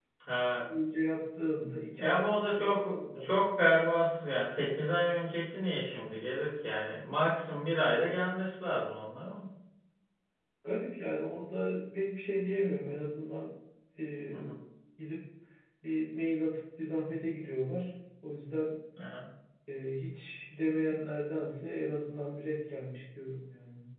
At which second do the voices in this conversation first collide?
2.0 s

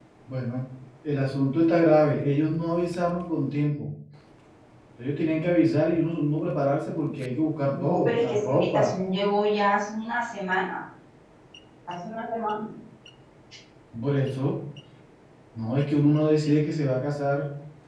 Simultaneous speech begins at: 7.7 s

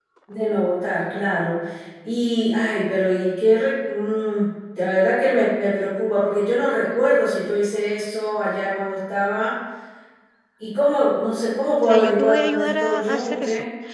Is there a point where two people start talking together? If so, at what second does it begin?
11.8 s

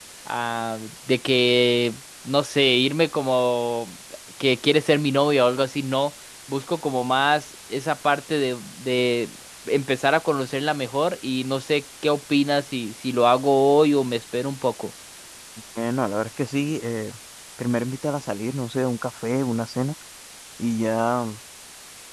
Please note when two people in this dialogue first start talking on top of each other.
none

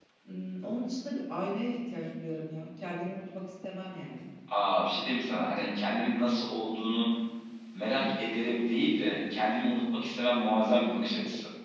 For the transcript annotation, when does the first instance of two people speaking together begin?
none

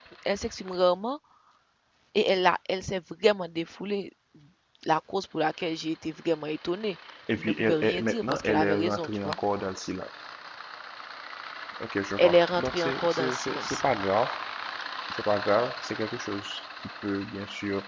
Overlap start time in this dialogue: 7.4 s

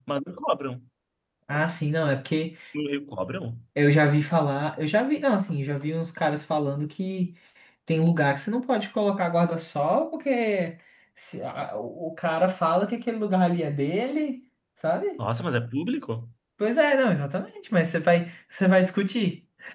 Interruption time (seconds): none

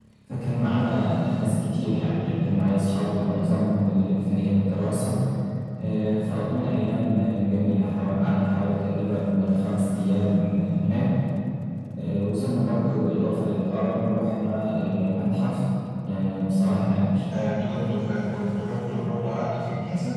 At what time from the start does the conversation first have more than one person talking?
none

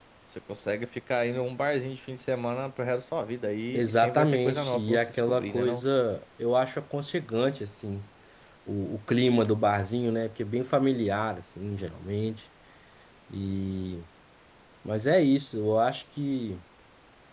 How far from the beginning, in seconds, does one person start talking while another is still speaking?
3.7 s

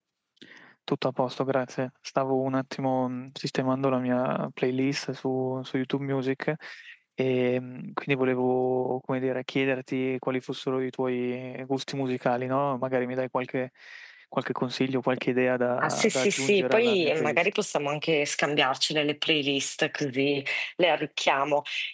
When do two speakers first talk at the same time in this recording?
15.8 s

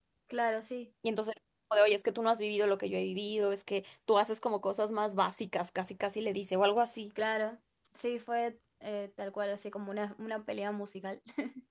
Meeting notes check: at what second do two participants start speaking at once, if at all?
none

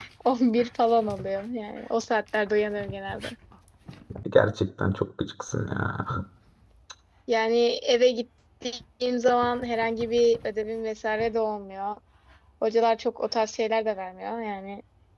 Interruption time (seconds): none

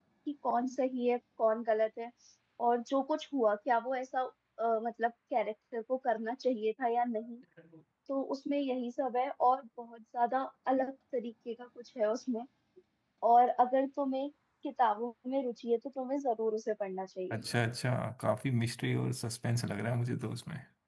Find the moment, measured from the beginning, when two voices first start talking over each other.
none

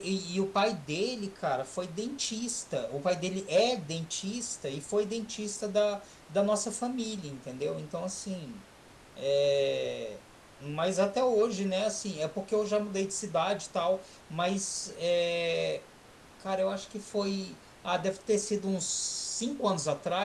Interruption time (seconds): none

